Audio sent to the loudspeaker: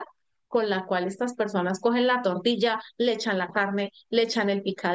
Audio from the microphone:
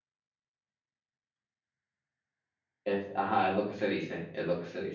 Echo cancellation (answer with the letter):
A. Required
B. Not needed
B